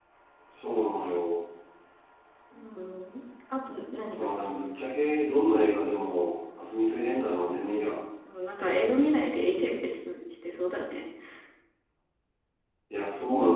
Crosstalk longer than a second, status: none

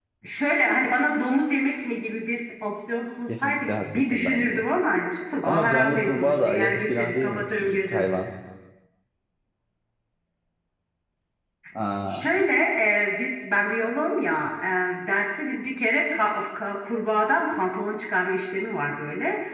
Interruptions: present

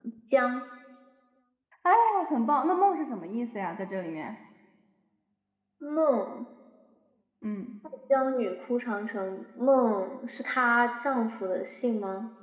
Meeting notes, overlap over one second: none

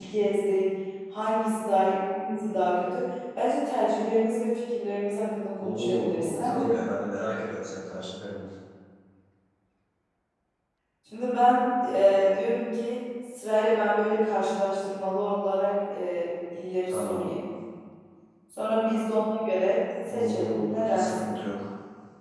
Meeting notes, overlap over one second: present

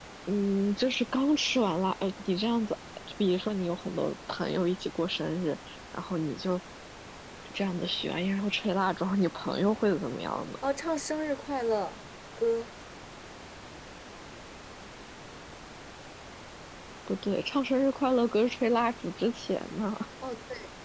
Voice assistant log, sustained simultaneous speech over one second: none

